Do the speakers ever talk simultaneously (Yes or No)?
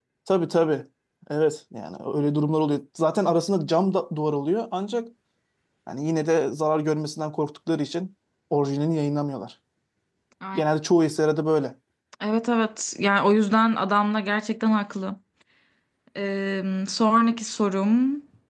No